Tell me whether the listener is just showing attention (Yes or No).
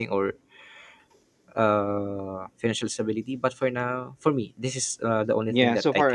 No